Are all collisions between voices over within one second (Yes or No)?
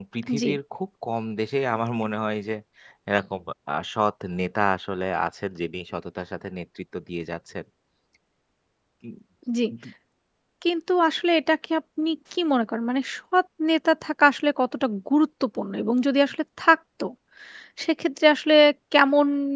Yes